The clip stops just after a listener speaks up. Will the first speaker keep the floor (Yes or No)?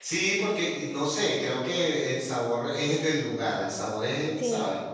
No